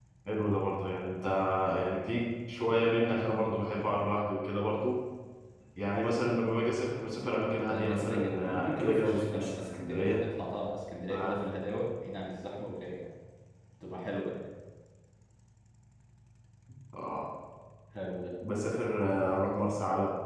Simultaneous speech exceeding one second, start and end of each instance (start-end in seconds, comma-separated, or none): 7.7-10.2